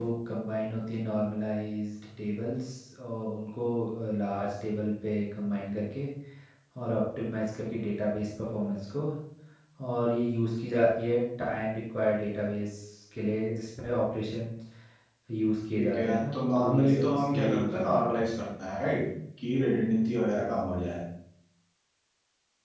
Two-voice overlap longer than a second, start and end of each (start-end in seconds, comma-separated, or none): 15.8-18.1